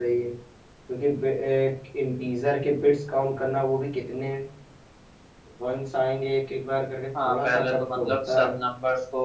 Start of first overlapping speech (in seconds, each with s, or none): 7.2 s